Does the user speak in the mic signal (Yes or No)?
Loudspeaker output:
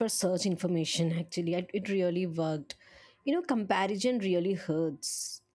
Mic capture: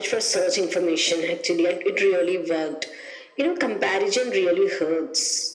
No